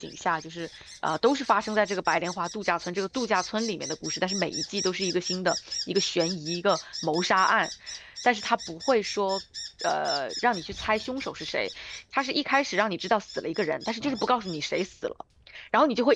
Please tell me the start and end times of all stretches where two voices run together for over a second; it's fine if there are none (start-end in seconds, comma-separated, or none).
none